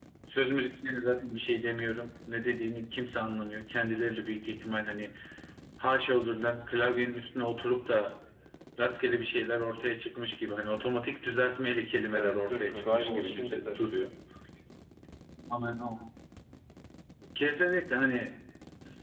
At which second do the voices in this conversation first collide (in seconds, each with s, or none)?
12.1 s